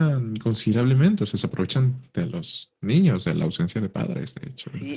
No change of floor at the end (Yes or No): No